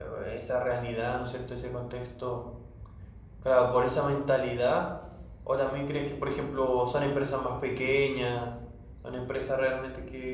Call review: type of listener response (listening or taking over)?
listening